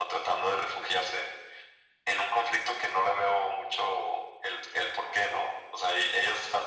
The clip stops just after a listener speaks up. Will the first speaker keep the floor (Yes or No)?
Yes